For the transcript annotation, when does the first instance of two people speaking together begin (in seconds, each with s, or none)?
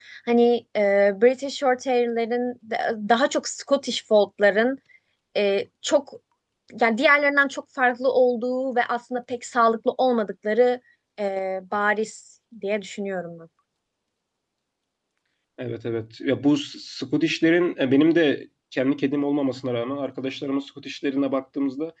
none